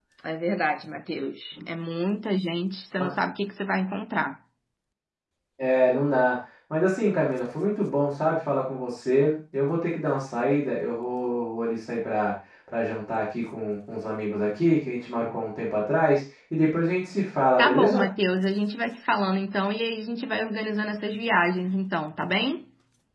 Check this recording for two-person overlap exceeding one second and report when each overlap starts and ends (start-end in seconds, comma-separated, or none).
none